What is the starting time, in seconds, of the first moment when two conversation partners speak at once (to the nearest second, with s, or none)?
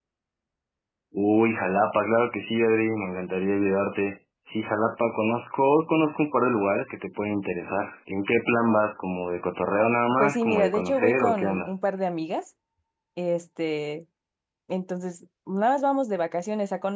10 s